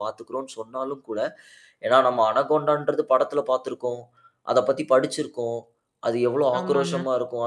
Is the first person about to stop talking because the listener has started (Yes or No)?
No